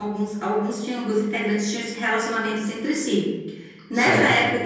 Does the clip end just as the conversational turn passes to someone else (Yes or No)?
No